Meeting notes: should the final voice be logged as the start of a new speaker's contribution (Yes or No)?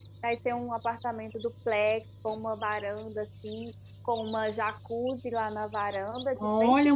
Yes